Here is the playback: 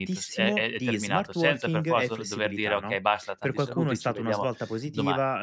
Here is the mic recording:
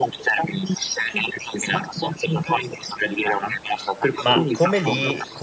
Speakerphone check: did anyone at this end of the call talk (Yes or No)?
Yes